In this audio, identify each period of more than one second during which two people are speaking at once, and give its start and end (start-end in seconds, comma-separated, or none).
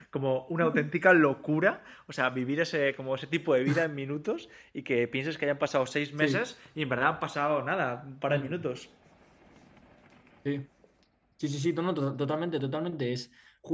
none